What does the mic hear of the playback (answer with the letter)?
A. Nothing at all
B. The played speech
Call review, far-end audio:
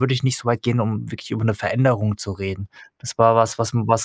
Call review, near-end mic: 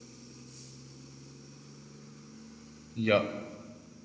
A